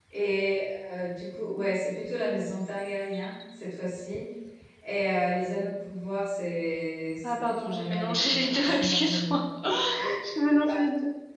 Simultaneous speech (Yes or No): Yes